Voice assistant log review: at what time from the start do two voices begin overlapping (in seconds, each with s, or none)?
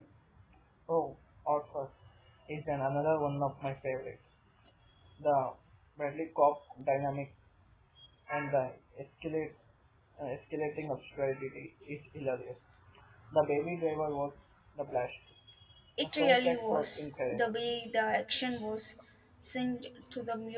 16.0 s